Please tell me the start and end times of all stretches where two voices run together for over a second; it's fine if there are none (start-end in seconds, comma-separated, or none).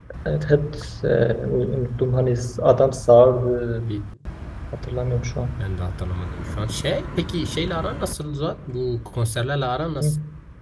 none